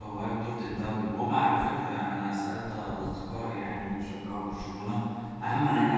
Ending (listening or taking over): listening